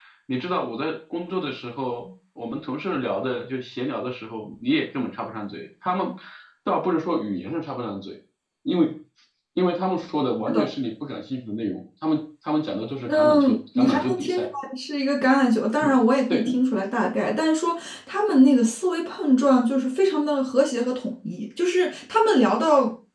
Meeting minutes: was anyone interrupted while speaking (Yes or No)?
Yes